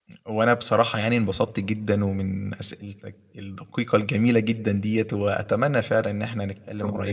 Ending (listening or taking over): listening